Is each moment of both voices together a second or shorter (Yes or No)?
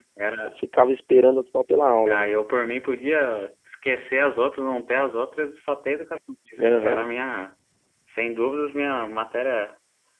Yes